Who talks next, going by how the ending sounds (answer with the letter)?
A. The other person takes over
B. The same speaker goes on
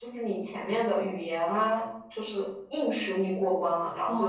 A